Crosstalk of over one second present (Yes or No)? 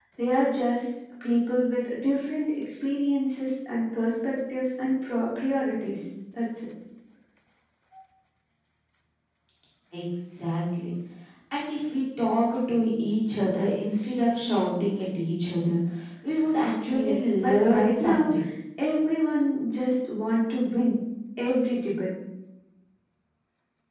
Yes